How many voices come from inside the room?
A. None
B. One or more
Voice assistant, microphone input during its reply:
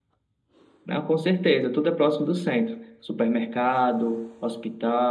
A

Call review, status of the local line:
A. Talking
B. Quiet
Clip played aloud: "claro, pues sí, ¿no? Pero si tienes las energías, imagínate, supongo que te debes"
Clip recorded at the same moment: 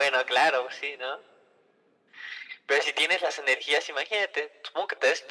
B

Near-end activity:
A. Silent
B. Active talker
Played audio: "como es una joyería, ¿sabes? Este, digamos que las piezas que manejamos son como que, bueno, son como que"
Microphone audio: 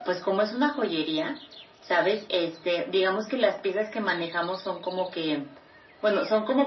A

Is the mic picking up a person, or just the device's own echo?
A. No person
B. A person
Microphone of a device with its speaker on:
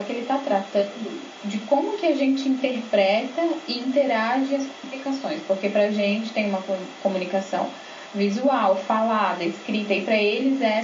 A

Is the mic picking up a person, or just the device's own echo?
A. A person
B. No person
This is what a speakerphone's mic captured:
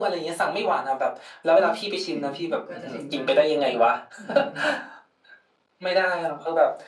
A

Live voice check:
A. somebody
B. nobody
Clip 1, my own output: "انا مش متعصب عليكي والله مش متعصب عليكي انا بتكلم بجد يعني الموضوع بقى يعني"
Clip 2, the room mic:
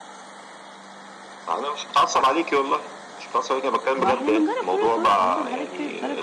A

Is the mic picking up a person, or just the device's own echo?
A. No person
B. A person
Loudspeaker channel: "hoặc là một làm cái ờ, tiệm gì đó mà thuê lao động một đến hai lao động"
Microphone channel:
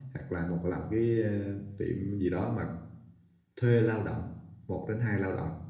A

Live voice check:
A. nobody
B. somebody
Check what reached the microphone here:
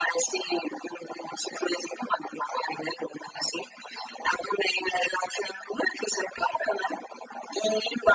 A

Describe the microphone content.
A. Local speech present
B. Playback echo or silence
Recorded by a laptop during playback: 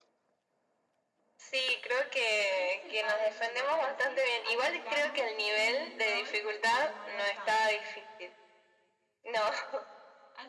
A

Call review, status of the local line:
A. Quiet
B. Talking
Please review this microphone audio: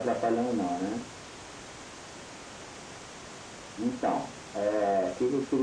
A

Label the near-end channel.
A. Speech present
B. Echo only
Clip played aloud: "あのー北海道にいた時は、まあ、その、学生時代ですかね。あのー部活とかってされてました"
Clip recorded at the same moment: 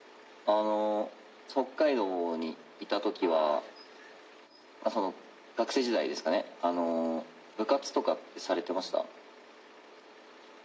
A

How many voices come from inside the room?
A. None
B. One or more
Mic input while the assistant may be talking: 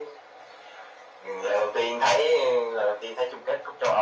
A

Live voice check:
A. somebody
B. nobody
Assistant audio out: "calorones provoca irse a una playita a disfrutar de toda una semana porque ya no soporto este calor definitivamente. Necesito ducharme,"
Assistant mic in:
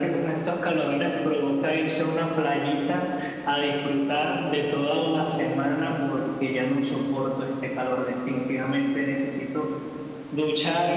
B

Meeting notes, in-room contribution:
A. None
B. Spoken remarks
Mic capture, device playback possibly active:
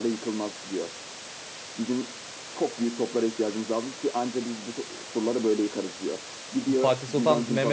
B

